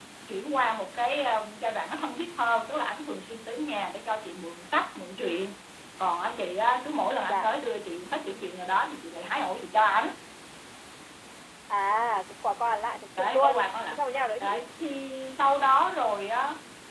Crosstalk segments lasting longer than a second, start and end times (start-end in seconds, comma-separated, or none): none